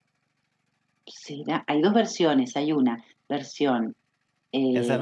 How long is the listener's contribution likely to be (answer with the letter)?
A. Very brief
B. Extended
B